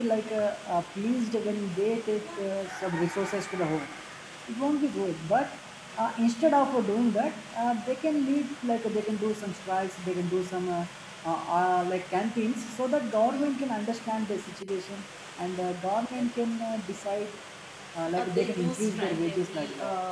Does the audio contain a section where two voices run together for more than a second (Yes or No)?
Yes